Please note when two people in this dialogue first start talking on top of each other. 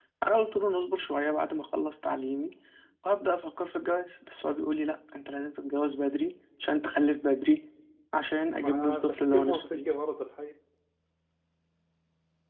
8.6 s

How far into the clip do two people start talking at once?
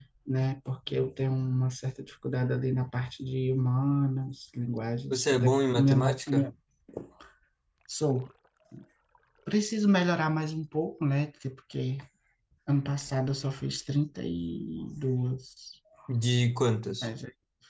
5.1 s

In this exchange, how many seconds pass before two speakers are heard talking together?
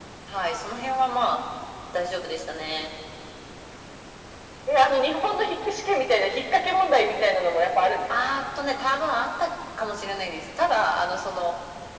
none

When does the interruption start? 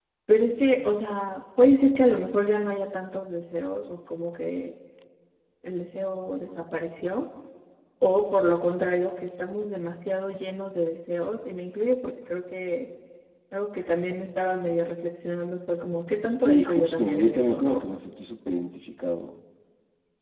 16.4 s

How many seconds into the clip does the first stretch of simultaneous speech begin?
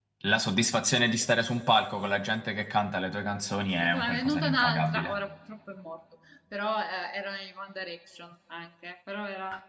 3.8 s

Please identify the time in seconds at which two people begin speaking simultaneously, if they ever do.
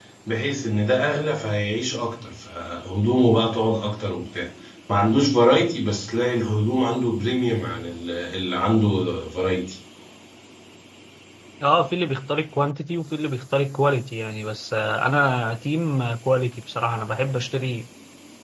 none

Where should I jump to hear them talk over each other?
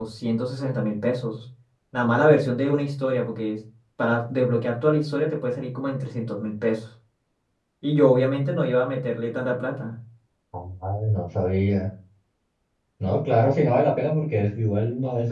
none

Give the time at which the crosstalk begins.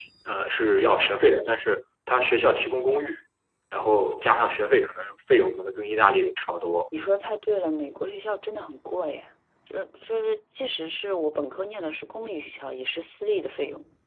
none

